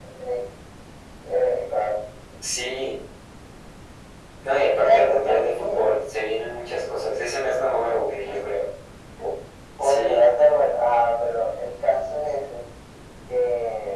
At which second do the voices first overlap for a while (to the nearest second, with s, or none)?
5 s